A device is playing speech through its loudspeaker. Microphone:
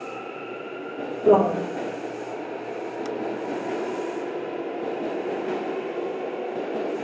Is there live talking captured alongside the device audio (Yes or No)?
Yes